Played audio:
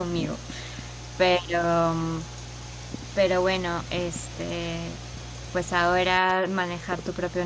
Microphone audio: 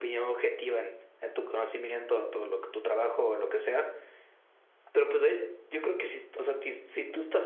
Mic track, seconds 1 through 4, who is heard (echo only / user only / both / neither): user only